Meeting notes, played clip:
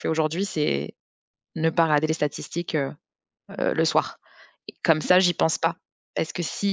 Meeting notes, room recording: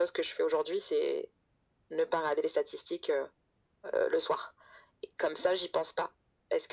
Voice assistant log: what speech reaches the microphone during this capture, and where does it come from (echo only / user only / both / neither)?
echo only